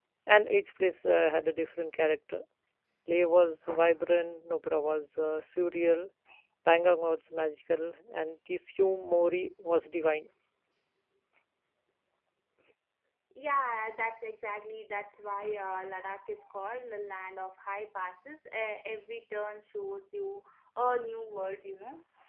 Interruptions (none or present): none